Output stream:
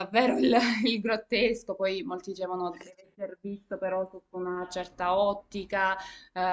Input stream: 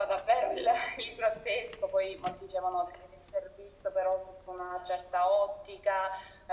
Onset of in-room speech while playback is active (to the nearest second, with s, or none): none